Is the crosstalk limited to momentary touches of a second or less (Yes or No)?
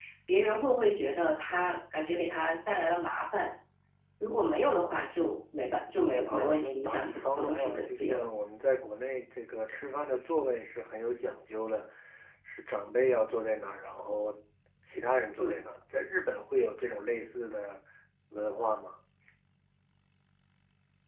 No